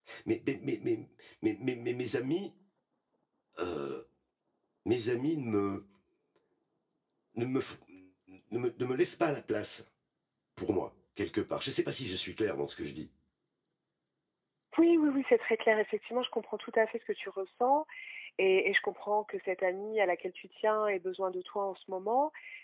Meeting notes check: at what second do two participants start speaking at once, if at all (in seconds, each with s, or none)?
none